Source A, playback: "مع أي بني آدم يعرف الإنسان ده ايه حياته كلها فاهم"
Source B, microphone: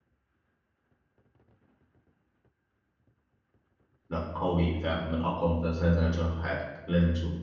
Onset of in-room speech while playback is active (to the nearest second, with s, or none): 4 s